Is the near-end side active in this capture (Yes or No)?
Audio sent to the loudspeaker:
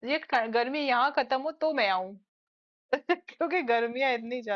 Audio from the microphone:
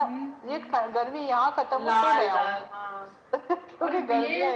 Yes